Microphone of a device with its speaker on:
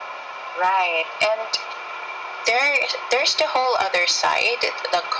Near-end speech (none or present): none